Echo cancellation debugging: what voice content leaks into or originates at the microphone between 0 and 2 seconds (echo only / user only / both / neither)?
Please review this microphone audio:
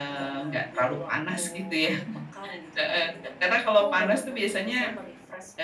echo only